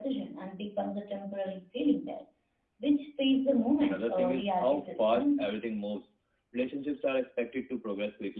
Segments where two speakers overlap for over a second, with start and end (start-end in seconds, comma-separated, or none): 3.8-5.5